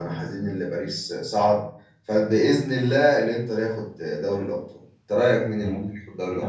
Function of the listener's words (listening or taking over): taking over